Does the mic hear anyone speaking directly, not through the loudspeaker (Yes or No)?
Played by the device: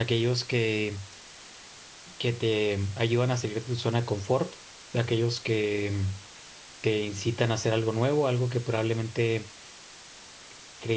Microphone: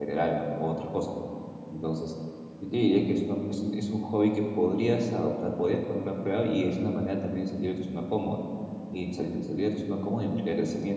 Yes